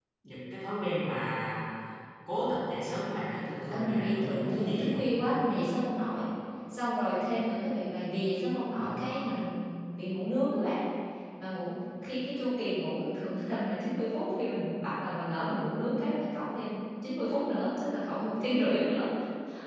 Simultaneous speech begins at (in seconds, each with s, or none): 3.7 s